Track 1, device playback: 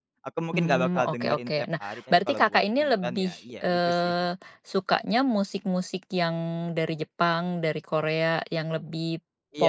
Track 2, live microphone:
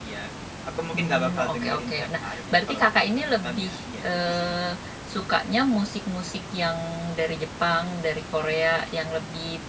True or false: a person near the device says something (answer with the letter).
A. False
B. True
A